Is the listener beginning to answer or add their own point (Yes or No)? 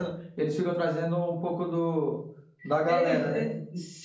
Yes